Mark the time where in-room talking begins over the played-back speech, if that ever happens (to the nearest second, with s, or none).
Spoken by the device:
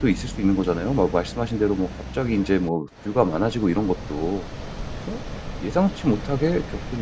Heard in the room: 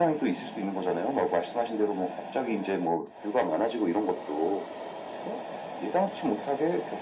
none